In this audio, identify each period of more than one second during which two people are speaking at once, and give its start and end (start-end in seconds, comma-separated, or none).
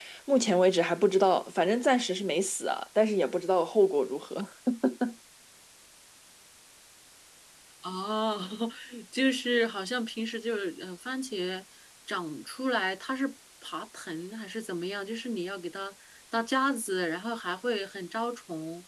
none